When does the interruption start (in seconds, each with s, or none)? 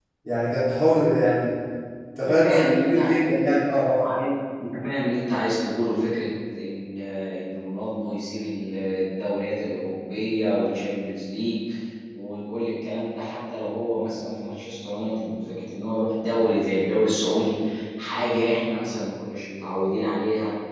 2.2 s